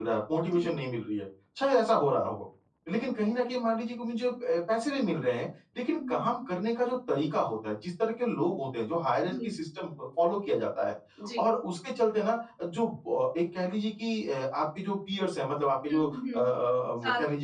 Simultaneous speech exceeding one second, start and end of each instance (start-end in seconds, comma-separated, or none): none